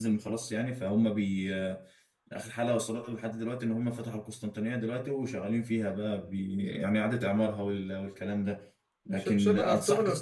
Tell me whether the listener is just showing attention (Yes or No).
No